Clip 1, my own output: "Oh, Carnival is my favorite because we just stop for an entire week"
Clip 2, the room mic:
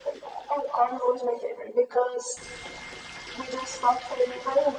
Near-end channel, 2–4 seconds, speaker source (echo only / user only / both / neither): echo only